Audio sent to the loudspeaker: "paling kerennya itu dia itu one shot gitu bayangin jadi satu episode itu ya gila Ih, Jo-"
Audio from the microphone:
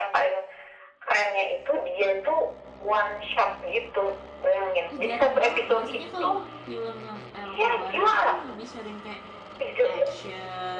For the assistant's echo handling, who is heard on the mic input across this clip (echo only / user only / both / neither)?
both